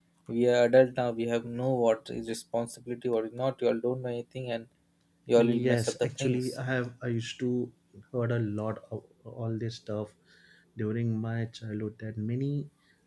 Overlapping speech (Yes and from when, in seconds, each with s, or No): Yes, from 5.4 s